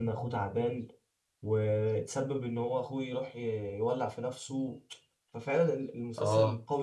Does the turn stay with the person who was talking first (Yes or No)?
Yes